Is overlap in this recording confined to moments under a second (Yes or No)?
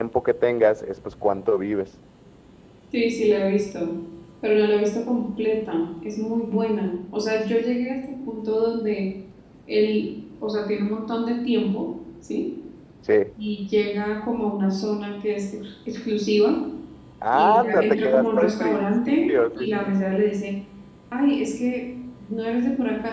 No